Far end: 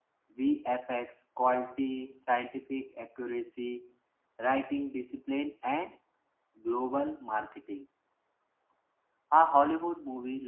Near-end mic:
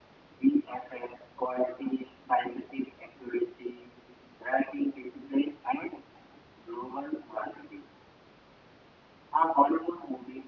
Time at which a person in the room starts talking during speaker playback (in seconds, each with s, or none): none